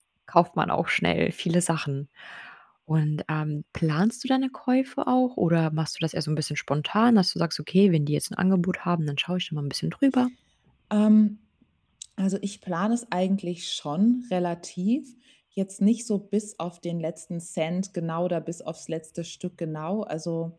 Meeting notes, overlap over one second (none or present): none